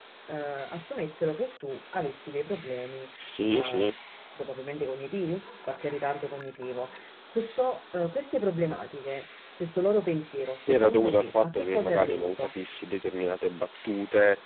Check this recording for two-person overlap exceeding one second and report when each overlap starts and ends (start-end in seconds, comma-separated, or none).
10.7-12.3